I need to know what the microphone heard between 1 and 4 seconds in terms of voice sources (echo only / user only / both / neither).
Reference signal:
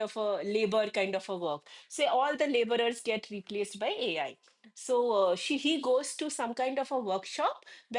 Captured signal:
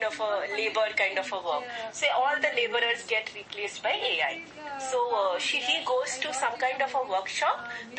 both